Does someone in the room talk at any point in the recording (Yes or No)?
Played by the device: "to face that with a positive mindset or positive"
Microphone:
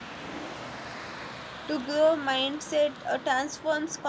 Yes